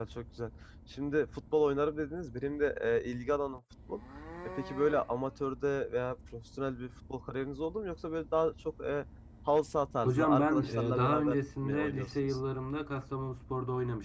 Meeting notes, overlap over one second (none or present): present